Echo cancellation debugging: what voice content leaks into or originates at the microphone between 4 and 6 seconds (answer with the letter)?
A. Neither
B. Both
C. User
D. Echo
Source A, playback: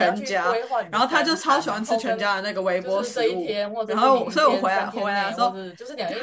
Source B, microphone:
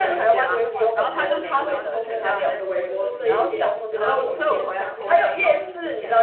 B